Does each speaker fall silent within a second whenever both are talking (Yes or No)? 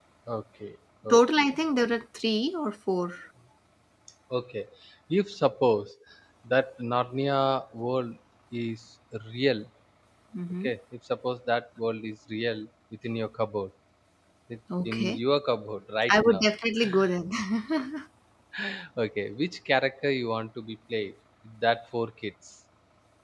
Yes